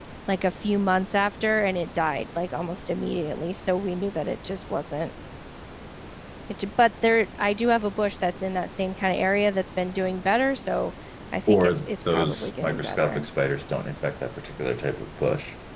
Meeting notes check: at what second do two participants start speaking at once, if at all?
11 s

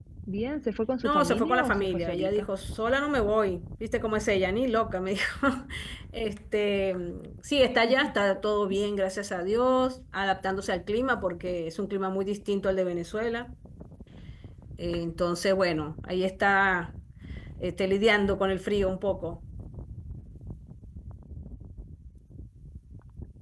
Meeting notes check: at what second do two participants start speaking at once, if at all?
1 s

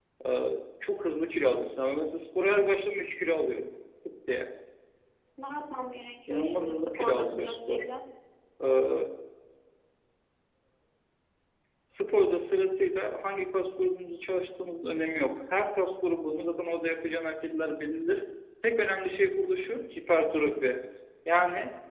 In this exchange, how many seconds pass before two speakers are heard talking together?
6 s

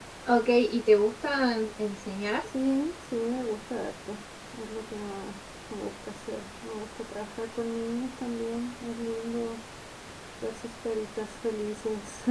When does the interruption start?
none

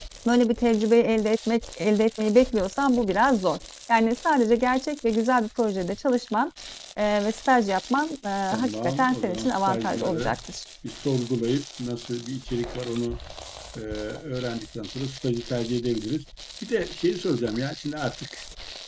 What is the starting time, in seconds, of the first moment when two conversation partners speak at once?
9 s

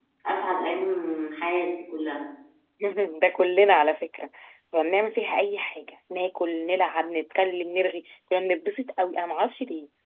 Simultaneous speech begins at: none

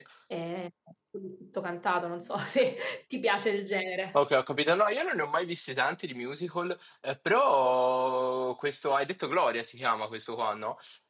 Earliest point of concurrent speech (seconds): none

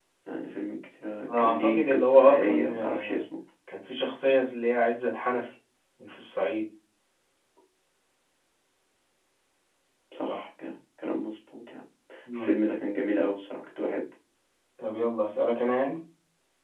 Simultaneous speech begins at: 1 s

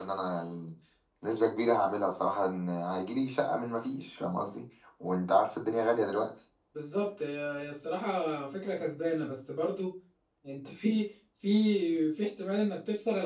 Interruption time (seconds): none

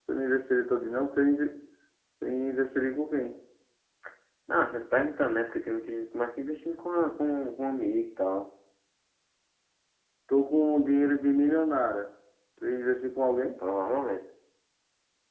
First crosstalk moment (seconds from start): none

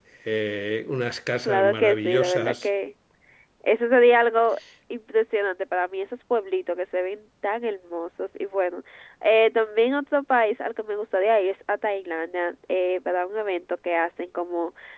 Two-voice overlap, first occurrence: 1 s

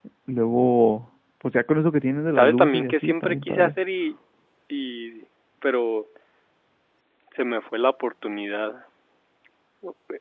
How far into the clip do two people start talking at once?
2 s

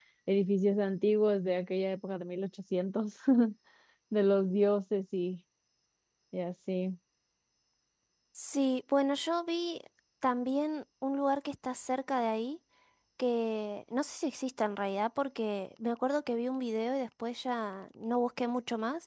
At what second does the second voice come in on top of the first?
none

